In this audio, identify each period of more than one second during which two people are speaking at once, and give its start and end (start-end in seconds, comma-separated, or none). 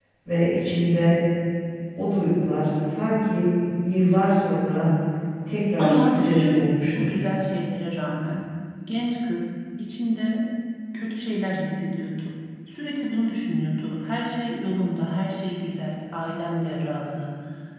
5.8-7.1